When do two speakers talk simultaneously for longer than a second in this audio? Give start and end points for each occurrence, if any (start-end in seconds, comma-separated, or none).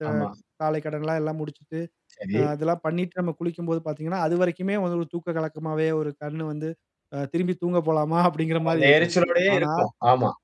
none